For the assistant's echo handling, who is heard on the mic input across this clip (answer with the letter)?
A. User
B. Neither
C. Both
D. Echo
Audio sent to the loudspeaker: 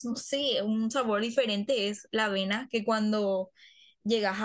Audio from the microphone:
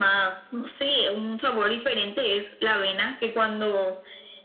D